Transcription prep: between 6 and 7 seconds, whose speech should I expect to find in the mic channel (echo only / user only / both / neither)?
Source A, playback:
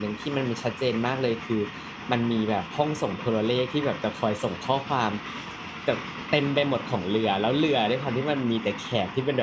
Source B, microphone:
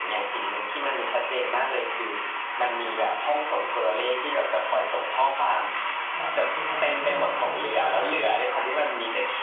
both